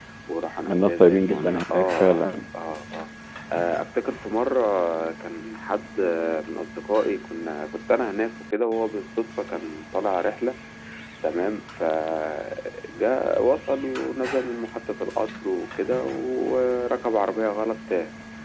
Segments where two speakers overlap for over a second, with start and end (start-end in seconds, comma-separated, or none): 0.7-2.2